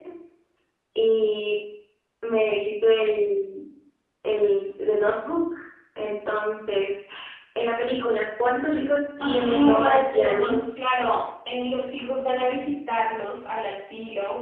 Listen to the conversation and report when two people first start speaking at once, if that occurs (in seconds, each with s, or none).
9.2 s